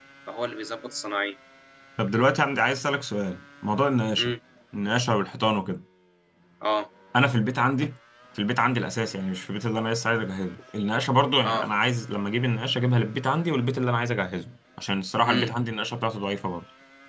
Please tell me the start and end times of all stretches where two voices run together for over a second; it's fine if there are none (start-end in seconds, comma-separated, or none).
none